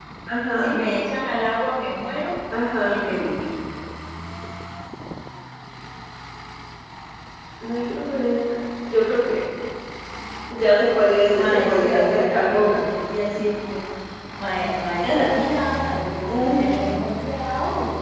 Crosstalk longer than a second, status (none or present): present